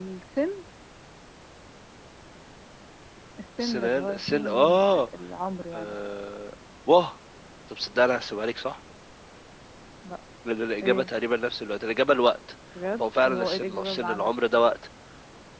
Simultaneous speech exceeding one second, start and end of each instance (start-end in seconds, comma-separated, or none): 3.6-5.1, 13.0-14.3